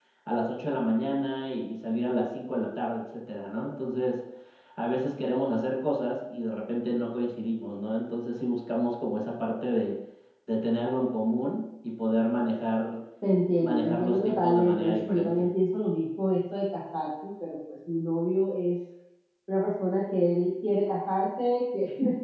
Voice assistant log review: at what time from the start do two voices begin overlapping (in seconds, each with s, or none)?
13.6 s